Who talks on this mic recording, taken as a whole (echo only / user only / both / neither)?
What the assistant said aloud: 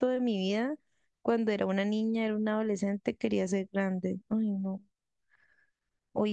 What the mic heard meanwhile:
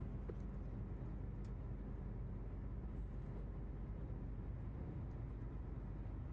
neither